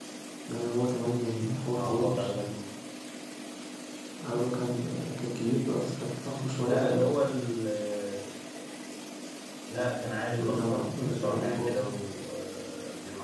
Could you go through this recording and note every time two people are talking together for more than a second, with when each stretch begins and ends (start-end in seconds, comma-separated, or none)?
10.4-11.9